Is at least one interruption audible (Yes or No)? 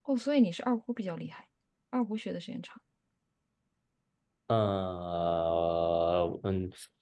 No